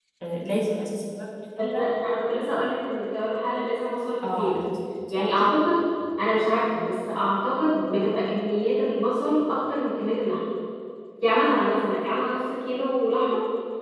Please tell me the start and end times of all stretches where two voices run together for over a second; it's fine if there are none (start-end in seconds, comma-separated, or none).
none